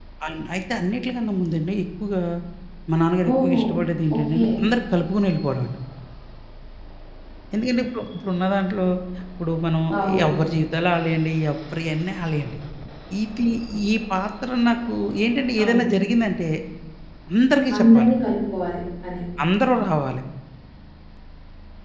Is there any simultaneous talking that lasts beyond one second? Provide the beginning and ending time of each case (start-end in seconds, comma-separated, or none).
none